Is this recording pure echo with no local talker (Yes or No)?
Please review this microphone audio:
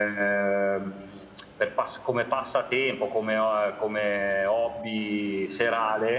No